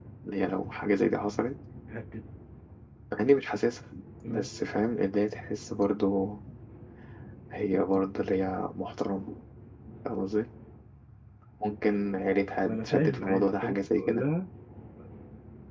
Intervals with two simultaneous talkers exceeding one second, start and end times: 12.6-14.2

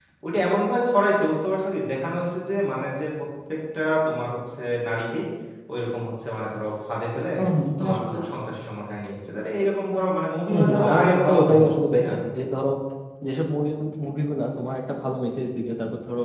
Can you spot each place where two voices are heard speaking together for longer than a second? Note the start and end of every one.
10.5-12.1

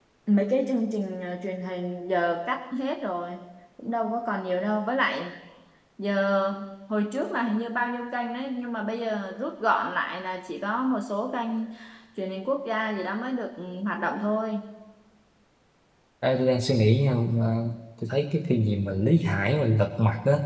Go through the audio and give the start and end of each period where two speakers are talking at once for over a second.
none

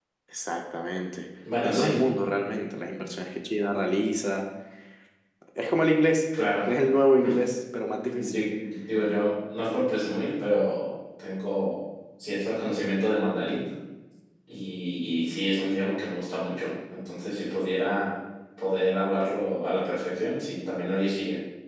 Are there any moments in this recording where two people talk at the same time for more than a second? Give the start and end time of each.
none

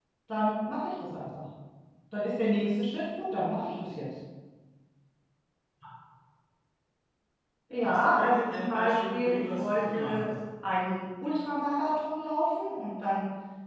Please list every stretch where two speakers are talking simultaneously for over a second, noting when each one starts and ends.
7.8-10.2

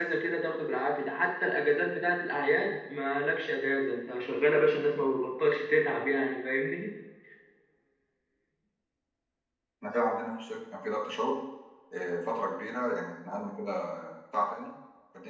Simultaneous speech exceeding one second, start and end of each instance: none

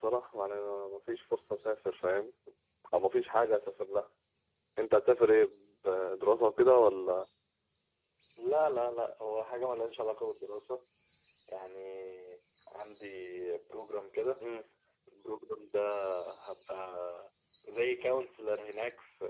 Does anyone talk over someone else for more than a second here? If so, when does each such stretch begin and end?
none

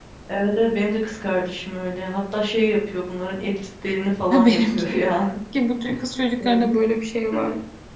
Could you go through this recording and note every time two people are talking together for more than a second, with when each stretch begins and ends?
none

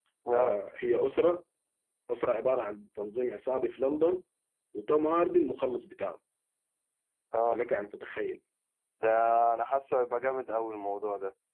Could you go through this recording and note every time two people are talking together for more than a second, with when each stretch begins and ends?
none

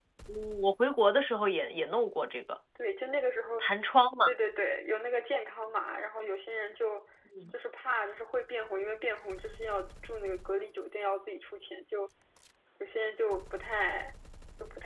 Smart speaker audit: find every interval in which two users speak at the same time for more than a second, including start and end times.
none

